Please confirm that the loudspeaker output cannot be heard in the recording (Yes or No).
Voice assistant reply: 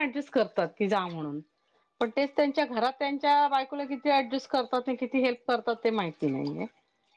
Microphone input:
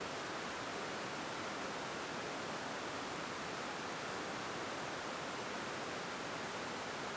Yes